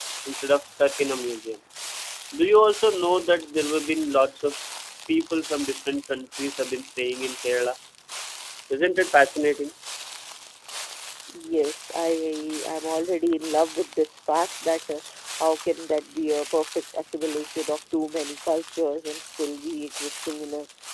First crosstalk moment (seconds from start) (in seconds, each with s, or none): none